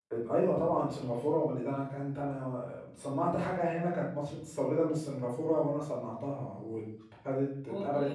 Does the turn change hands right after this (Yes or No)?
No